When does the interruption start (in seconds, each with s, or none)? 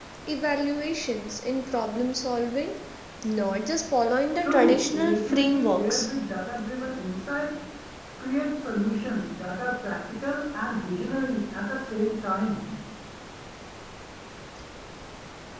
4.4 s